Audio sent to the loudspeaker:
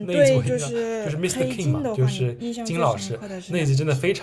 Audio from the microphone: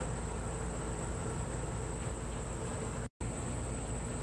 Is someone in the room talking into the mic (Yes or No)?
No